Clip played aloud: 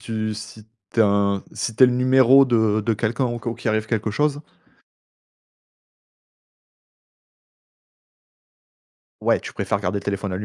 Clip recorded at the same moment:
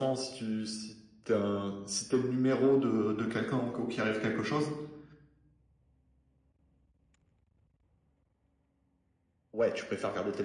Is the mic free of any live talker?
Yes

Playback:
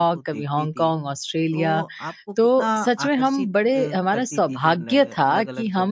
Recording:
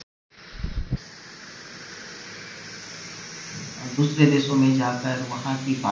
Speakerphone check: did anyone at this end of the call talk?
Yes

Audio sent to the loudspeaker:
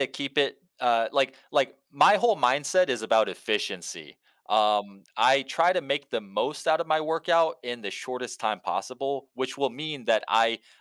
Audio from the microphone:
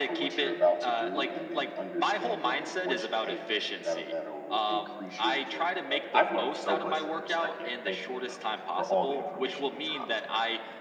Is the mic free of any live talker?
No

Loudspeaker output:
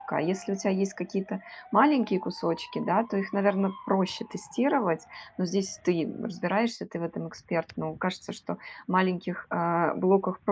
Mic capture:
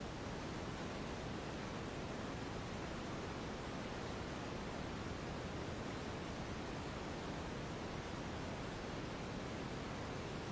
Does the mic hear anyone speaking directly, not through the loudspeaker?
No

